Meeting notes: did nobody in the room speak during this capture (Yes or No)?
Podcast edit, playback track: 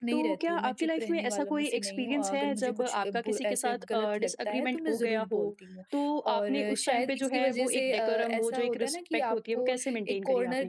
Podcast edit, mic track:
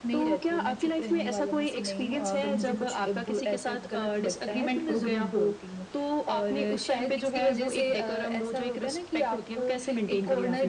Yes